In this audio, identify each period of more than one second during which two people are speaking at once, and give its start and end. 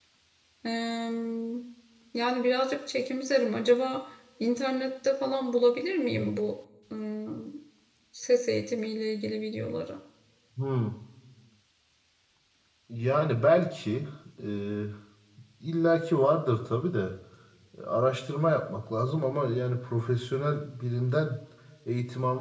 none

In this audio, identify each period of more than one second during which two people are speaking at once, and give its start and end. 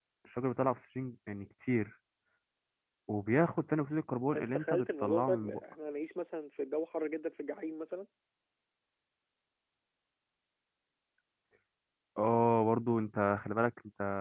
4.3-5.6

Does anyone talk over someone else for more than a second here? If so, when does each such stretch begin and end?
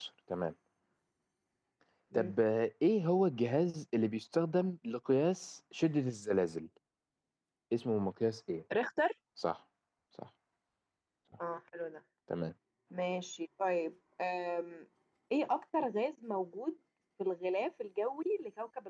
none

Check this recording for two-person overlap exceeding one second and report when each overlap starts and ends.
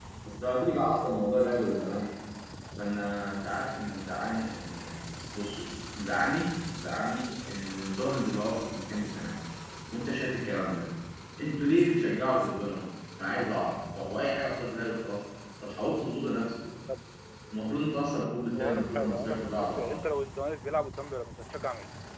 18.6-20.0

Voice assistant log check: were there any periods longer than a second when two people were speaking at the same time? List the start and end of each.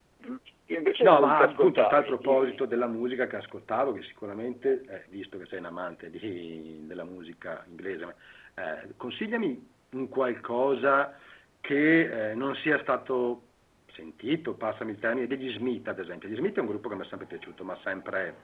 1.0-2.7

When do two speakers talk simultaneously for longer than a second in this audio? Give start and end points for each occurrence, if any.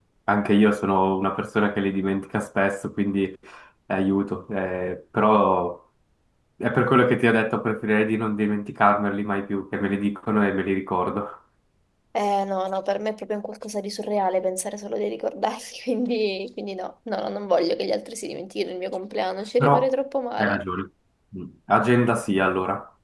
none

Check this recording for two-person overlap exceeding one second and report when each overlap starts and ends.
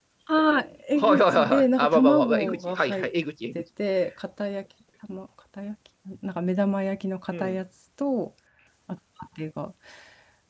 1.0-2.6

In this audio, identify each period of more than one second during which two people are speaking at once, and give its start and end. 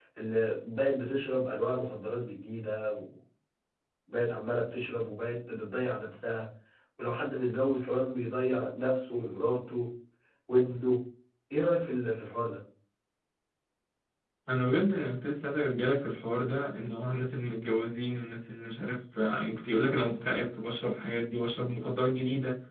none

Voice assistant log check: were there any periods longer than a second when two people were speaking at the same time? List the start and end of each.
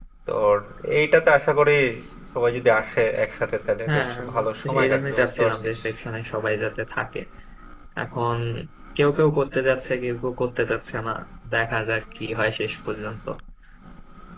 3.9-5.8

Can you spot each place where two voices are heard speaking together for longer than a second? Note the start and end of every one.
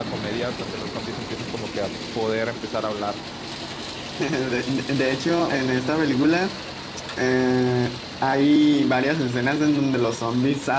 none

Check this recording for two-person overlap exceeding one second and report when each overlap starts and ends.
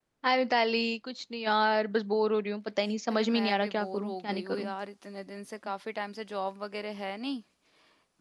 3.1-4.7

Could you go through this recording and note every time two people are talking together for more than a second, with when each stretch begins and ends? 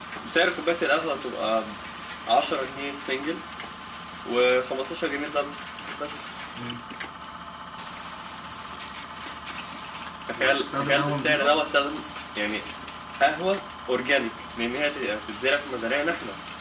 10.3-11.6

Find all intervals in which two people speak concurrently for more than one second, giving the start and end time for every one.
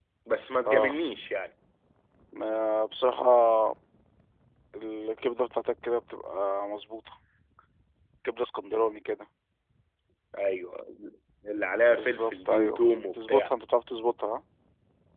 11.9-13.5

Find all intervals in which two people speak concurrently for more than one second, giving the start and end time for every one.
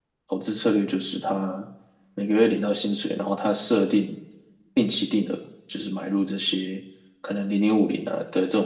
none

